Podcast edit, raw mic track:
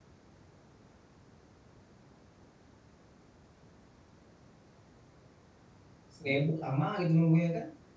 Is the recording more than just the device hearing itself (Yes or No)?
Yes